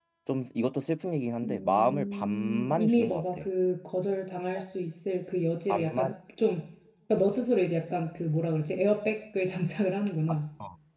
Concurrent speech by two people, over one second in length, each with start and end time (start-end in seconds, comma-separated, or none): 1.4-3.5